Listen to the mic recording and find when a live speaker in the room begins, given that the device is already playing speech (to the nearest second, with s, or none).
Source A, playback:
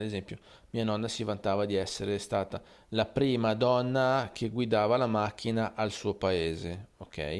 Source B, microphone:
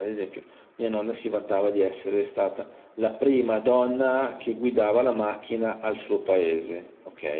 none